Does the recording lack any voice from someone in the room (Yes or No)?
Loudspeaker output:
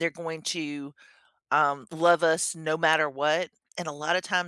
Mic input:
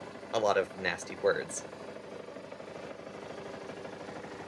No